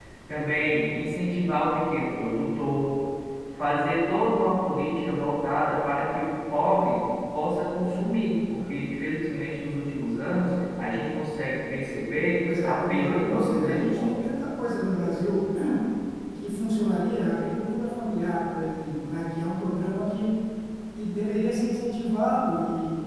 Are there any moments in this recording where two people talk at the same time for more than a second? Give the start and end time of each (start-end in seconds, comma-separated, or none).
12.6-14.3